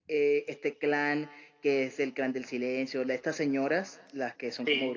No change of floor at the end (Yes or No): Yes